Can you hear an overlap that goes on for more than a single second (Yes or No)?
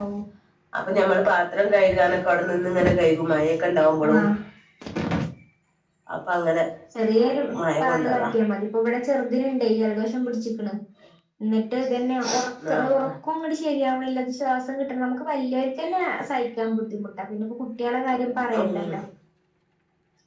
No